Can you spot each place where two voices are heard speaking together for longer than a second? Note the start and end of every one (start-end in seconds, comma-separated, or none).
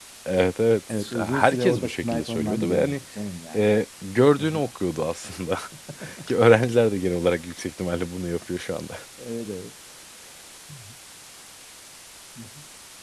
0.9-3.0